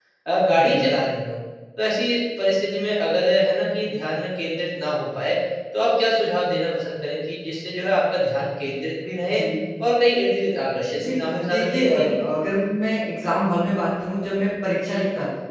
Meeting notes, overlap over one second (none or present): present